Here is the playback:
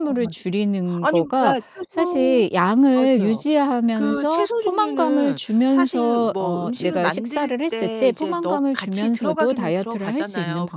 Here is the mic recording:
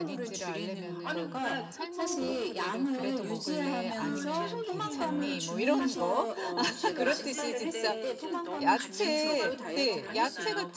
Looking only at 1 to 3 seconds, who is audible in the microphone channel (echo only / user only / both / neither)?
both